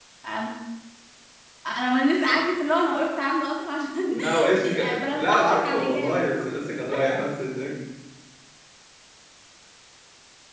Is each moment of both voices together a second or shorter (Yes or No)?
No